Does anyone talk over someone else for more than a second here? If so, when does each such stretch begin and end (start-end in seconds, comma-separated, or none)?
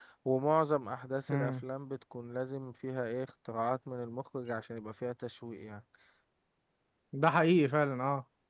none